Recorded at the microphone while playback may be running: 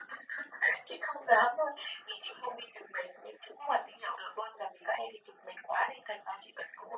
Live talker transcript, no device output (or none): none